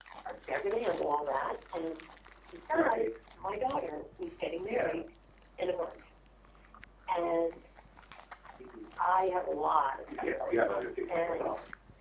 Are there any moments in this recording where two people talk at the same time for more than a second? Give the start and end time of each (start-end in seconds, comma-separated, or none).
10.2-11.5